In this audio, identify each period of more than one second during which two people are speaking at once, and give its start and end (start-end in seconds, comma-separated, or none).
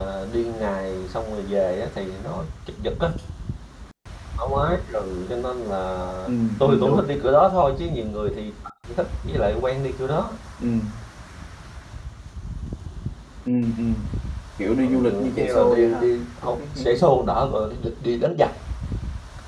14.8-16.1